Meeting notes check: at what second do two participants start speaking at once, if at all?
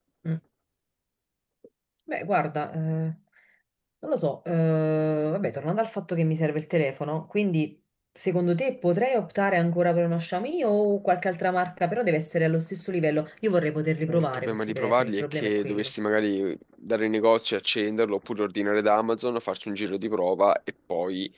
14.1 s

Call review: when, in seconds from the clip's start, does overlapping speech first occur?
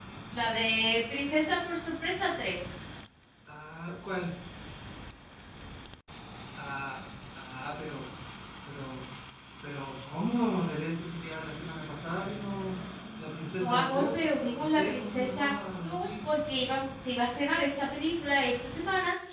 13.6 s

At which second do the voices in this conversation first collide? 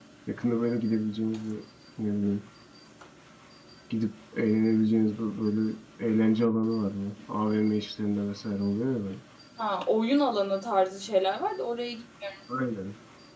none

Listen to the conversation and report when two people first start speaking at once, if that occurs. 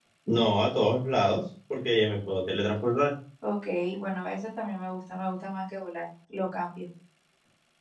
none

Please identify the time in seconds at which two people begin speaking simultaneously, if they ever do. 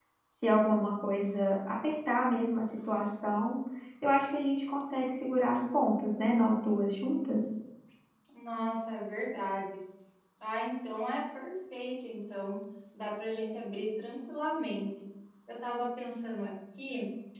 none

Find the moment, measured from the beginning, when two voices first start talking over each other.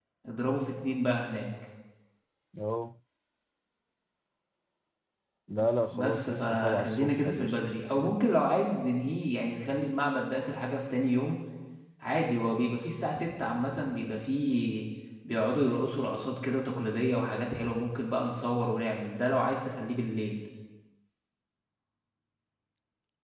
5.9 s

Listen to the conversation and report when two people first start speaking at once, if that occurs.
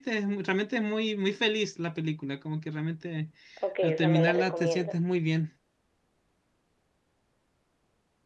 3.8 s

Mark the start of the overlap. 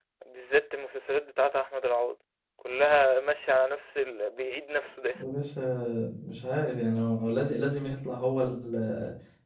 none

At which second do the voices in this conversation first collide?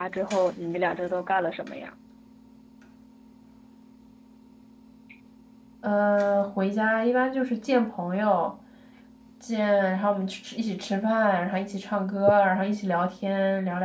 none

